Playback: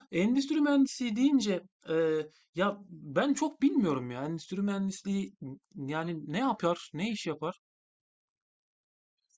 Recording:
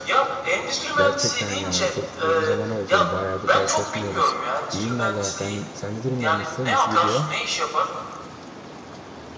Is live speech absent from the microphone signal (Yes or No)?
No